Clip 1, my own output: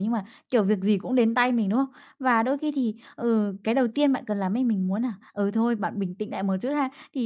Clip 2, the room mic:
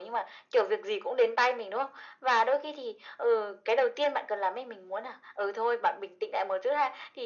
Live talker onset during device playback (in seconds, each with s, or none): none